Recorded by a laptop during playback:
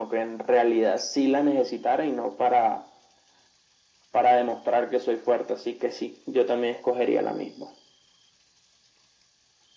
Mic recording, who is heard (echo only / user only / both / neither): echo only